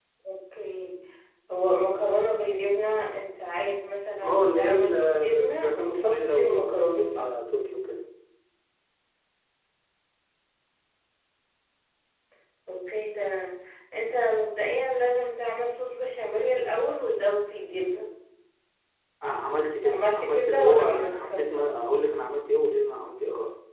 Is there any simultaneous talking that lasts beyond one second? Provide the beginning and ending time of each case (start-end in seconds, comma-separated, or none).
4.2-7.2, 19.8-21.7